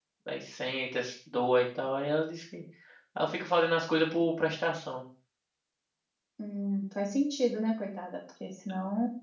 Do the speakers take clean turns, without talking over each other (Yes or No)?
Yes